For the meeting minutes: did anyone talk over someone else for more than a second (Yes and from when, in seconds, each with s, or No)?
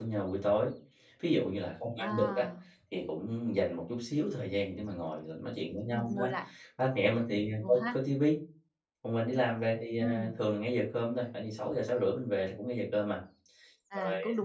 No